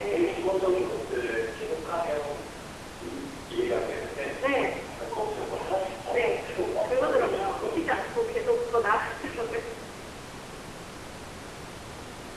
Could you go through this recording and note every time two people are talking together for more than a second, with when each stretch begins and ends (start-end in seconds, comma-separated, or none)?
6.1-8.0